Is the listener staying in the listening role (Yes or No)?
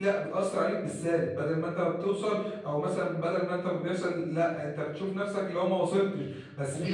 Yes